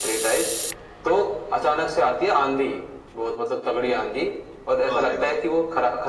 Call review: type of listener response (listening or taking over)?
listening